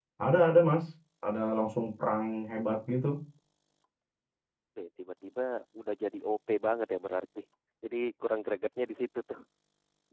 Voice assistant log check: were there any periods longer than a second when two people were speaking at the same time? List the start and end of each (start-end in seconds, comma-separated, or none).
none